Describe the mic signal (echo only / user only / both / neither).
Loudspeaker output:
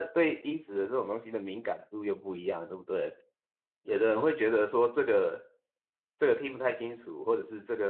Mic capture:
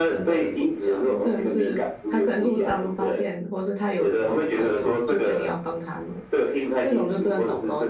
both